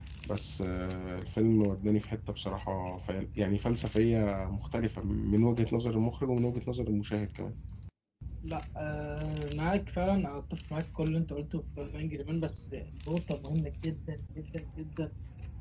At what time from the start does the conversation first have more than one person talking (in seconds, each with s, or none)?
none